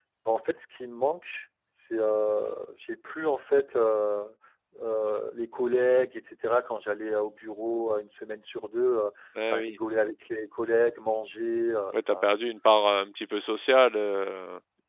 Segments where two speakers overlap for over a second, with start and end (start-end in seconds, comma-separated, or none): none